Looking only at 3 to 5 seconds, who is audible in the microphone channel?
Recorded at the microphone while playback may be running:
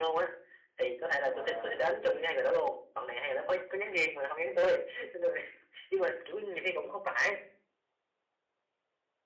echo only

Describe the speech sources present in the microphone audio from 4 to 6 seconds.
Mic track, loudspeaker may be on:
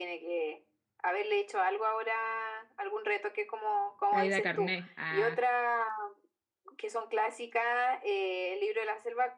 both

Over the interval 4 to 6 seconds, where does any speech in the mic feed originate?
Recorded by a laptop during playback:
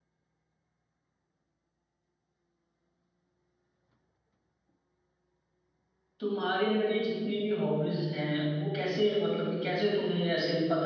neither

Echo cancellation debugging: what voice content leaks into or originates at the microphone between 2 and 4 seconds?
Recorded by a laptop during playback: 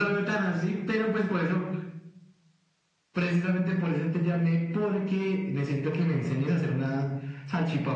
echo only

